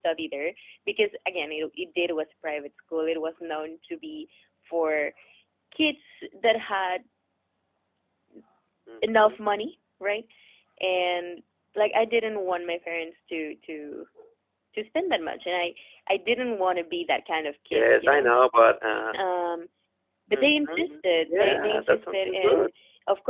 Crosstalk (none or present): present